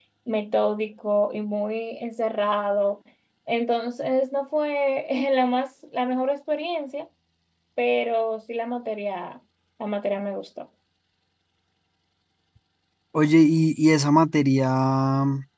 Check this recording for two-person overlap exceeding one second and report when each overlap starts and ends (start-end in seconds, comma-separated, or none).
none